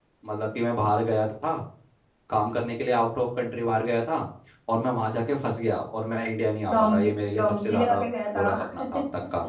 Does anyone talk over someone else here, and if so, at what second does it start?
6.7 s

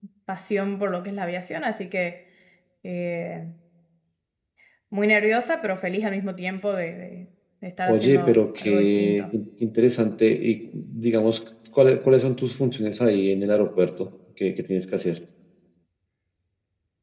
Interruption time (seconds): 7.9 s

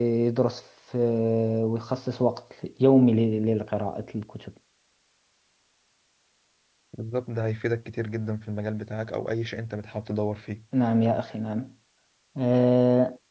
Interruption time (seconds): none

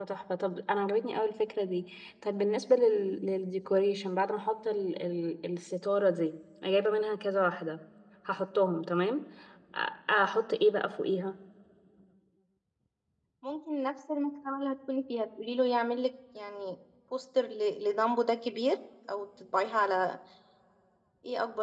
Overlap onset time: none

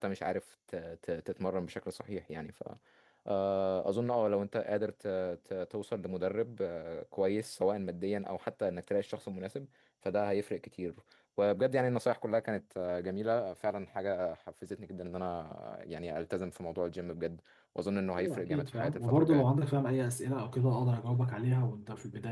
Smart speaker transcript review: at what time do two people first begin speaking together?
18.2 s

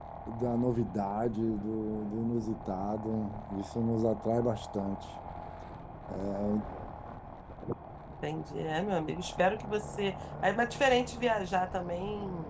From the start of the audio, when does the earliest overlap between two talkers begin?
none

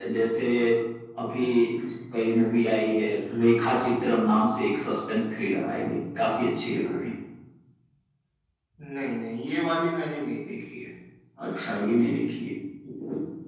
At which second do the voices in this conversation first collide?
none

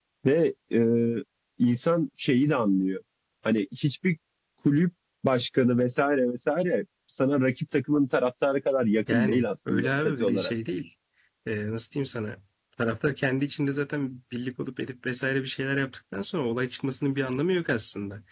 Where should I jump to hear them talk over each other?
9.1 s

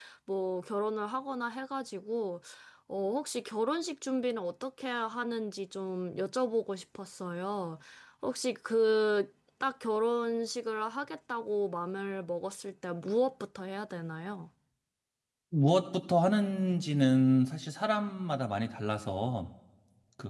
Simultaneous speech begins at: none

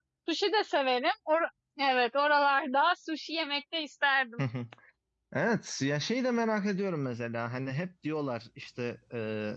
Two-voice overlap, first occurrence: none

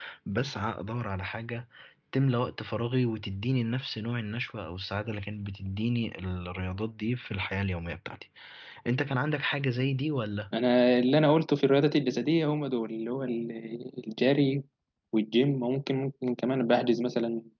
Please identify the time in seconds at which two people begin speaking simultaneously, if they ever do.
none

